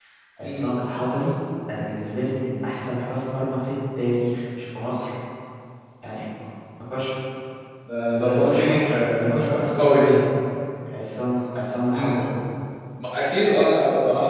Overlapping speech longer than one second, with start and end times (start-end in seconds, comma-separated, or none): 8.2-10.1